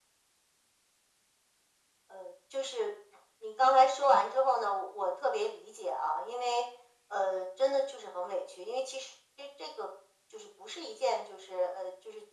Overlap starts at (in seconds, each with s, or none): none